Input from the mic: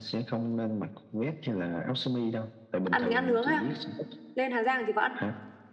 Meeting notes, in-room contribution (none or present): present